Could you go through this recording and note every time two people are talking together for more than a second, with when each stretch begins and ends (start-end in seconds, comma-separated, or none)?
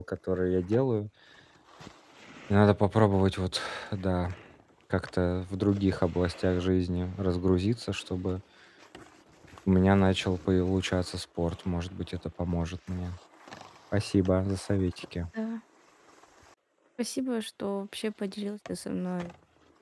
none